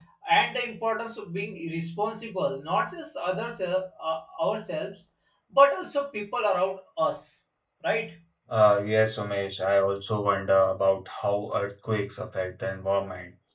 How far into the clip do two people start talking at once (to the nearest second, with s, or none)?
none